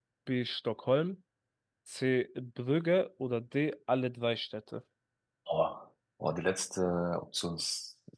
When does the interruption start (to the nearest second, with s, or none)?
none